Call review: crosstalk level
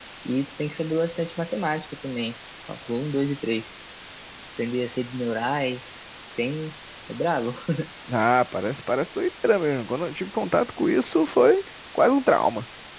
none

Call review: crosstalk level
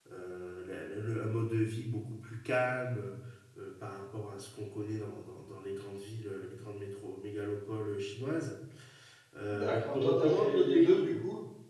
present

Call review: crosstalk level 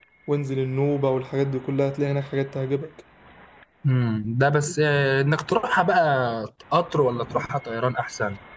none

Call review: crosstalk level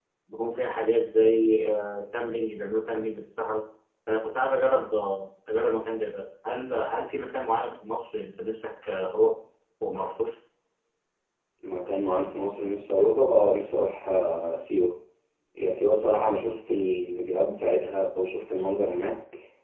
none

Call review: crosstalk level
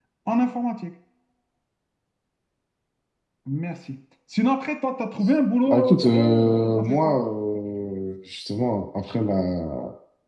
present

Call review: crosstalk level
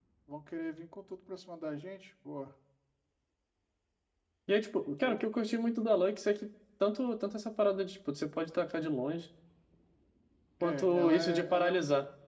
present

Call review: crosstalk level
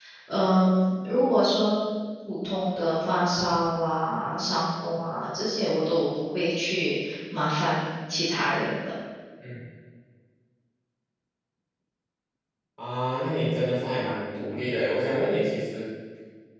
none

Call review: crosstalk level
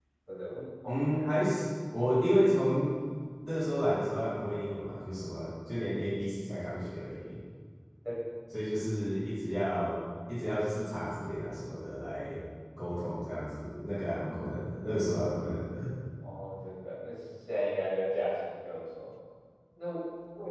none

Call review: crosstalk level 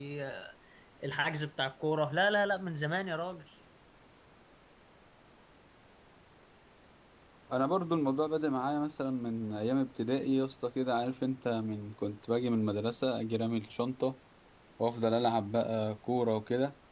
none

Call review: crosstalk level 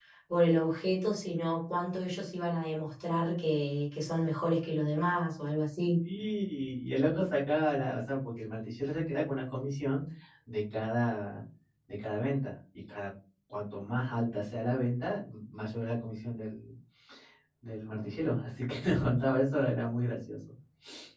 none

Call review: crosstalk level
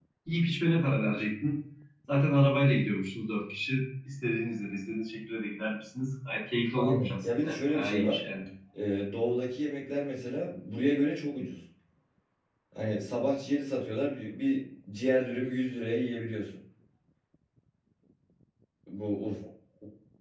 present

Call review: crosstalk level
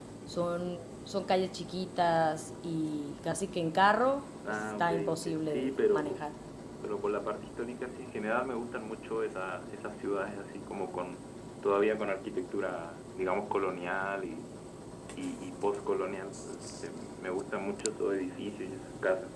present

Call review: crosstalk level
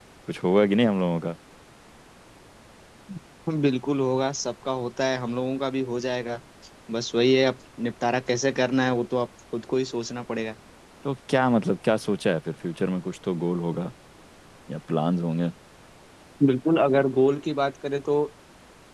none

